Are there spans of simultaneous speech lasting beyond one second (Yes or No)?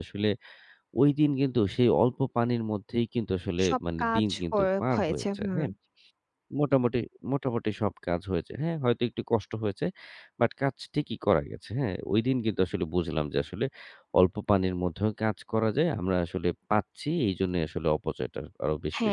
Yes